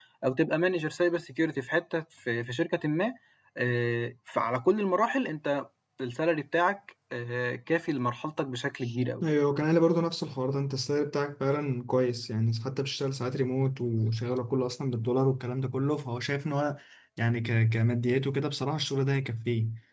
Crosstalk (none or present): none